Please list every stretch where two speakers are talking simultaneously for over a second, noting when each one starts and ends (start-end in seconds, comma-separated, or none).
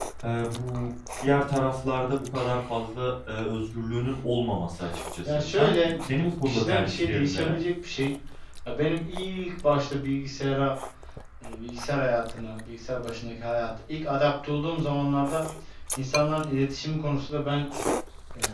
5.2-7.6